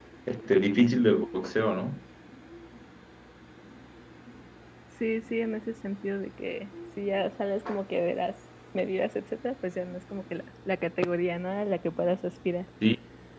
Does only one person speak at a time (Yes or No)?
Yes